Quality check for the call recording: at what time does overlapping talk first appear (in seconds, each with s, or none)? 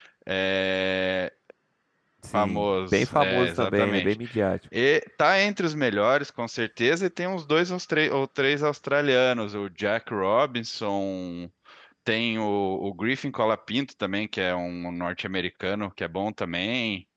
2.3 s